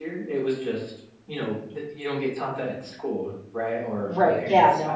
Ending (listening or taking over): taking over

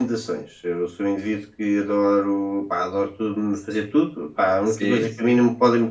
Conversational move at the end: listening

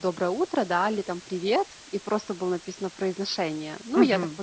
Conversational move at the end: taking over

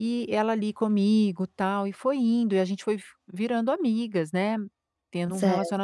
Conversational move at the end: listening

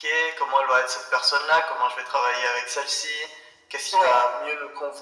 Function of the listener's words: listening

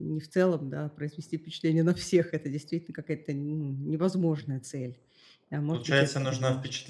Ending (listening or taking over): taking over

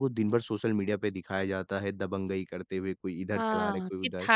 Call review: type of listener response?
taking over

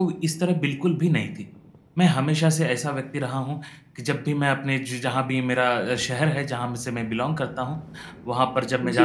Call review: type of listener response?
listening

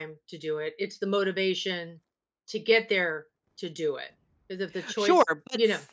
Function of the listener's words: taking over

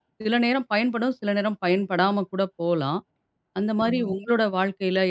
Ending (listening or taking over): listening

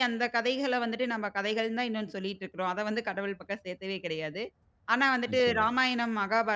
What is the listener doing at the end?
listening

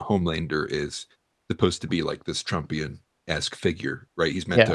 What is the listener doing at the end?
listening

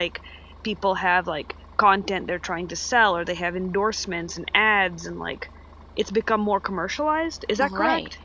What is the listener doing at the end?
taking over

